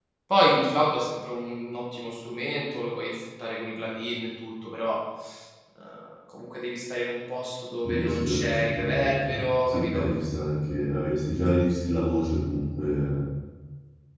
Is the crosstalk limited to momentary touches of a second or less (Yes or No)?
No